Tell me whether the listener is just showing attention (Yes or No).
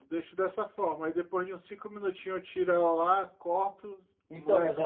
No